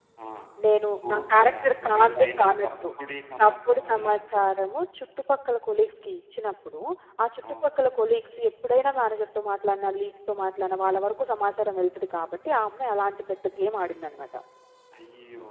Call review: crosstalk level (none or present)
present